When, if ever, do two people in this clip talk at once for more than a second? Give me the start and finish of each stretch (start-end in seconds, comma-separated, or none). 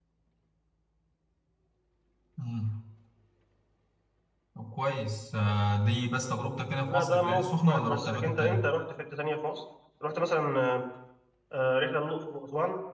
6.8-8.7